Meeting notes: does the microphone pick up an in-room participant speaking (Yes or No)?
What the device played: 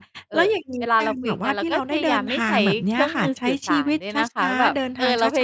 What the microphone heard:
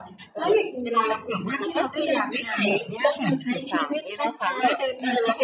No